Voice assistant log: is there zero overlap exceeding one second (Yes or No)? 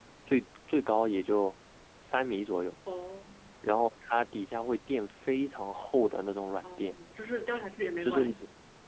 Yes